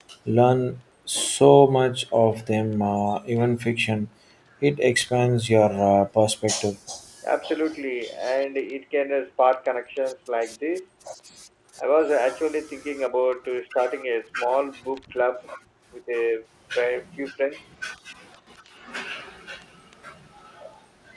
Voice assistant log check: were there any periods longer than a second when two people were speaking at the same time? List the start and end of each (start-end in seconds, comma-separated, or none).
none